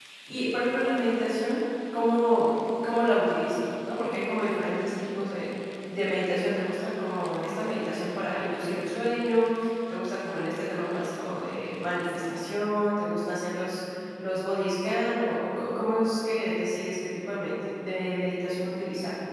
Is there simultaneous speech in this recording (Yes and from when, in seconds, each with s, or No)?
No